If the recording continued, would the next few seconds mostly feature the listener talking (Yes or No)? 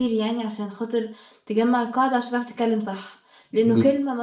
Yes